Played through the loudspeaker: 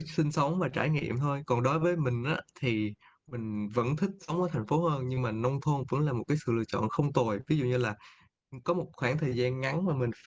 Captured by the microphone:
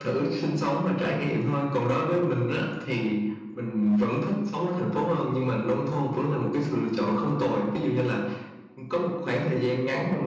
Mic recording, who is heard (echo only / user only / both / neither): echo only